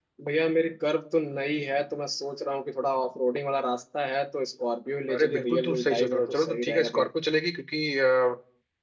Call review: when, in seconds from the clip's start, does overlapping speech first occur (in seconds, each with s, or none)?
5.1 s